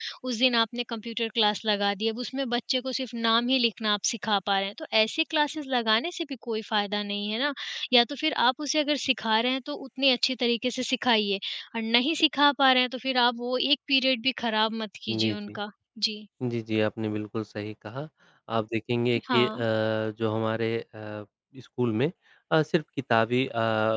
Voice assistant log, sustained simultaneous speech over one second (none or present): none